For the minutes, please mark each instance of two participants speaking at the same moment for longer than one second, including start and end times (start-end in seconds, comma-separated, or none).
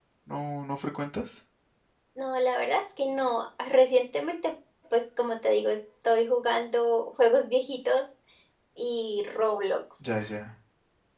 none